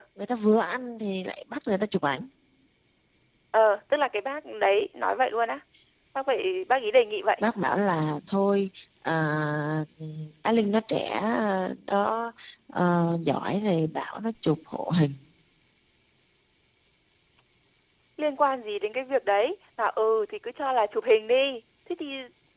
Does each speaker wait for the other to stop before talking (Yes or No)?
Yes